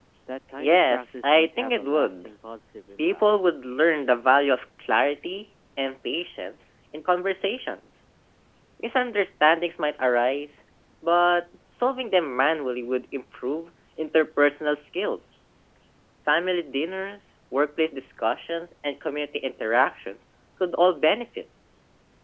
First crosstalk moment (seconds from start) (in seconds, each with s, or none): 0.6 s